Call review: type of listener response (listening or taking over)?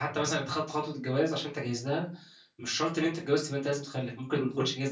taking over